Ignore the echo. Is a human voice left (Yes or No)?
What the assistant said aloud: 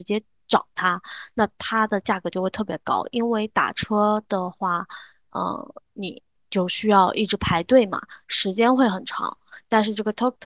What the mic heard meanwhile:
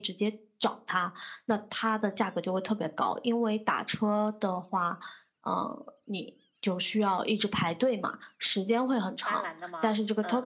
Yes